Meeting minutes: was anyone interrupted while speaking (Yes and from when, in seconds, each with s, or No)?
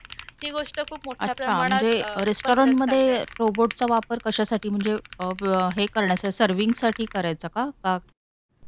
Yes, from 1.2 s